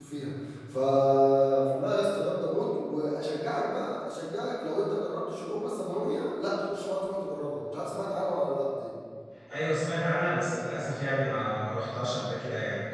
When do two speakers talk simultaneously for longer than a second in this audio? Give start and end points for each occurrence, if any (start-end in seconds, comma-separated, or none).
none